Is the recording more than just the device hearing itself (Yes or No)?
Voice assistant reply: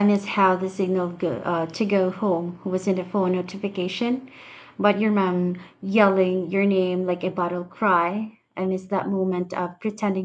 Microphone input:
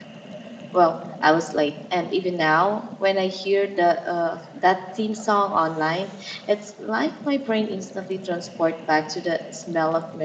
Yes